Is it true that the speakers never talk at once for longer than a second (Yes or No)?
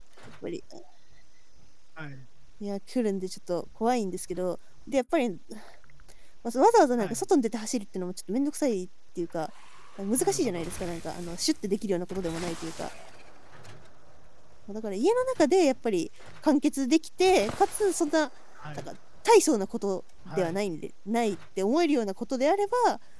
Yes